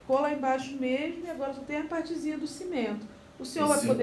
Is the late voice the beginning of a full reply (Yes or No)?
No